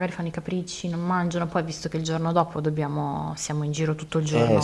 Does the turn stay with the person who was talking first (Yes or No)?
No